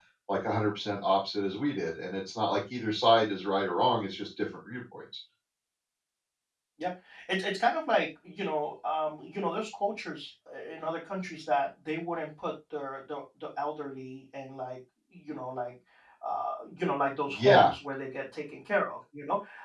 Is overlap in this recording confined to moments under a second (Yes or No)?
Yes